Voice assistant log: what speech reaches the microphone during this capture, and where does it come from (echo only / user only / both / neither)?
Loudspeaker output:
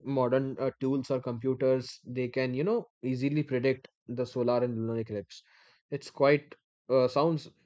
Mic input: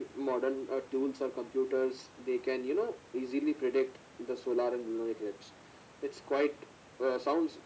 echo only